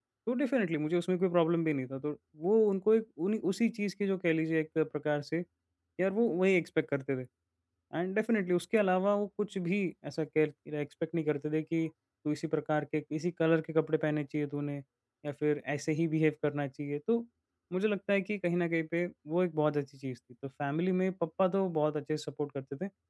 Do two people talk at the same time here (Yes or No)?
No